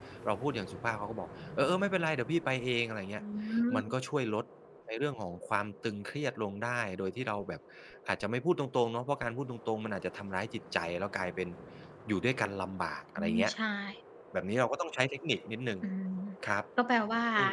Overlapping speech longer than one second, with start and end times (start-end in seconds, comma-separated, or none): none